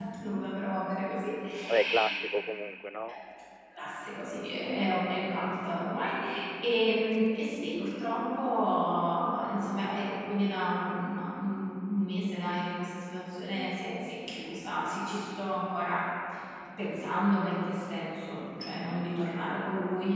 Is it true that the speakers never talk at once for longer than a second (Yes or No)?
Yes